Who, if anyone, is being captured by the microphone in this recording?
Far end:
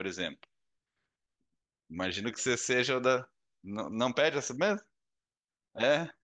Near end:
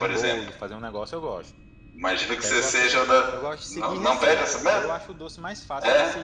both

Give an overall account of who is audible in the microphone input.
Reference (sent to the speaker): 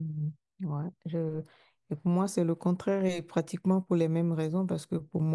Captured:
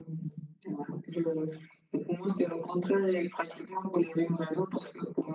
echo only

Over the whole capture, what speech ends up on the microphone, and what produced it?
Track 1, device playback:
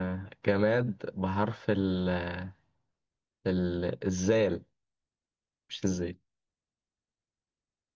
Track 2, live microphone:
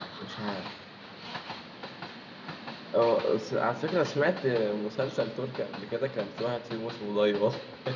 user only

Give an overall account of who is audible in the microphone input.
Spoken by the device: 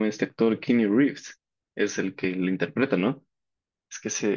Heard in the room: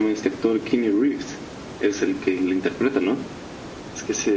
echo only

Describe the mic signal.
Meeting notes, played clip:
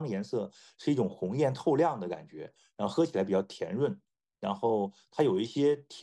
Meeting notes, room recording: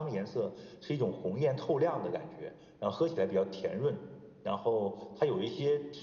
echo only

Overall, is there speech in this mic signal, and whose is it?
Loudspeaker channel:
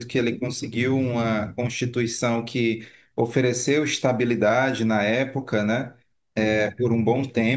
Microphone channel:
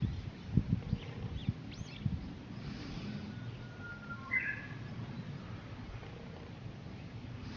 neither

